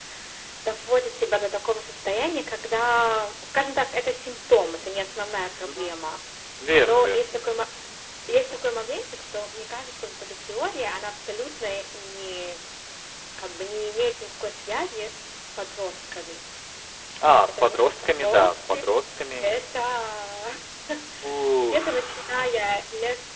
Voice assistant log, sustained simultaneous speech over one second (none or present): present